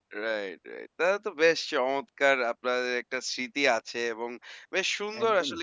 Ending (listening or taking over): listening